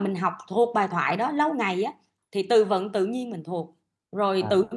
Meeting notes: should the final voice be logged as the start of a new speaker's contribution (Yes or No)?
No